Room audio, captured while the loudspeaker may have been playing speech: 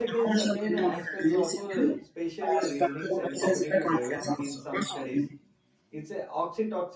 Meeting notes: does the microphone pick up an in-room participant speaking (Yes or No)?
Yes